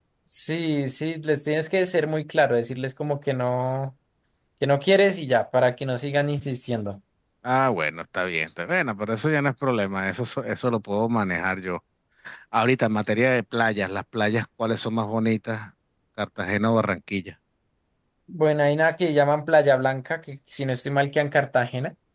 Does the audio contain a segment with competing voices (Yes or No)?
No